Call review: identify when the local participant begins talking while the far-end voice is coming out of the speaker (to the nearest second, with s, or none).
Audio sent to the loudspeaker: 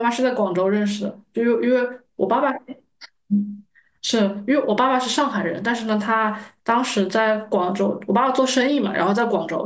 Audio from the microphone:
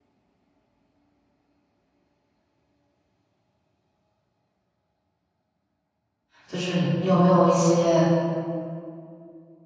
6 s